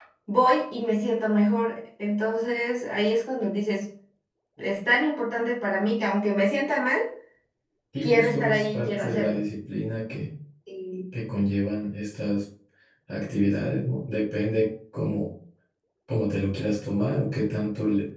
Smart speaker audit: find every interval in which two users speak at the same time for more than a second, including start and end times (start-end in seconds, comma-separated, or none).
8.0-9.4